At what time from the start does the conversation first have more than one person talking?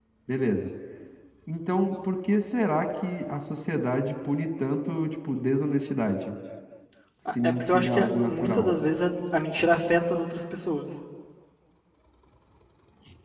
7.3 s

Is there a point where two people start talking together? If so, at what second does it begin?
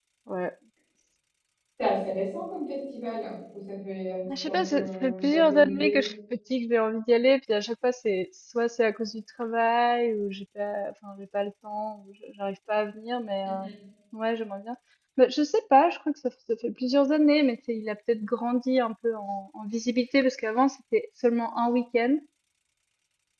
4.5 s

